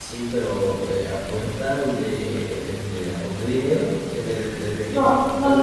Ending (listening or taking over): taking over